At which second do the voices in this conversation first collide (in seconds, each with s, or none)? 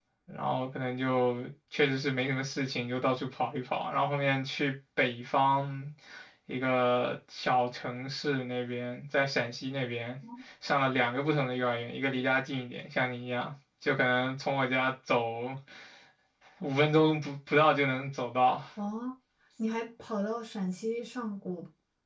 none